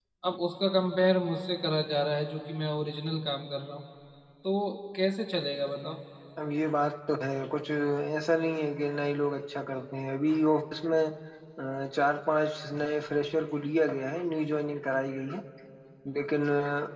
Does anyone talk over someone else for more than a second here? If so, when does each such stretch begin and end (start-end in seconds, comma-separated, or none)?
none